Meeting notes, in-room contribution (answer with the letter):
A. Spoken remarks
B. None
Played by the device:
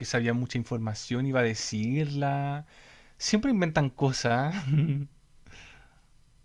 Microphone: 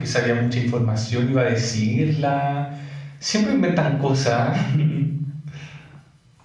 B